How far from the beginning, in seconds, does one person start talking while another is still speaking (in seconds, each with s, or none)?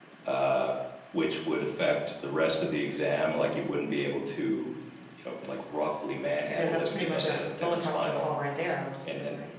6.5 s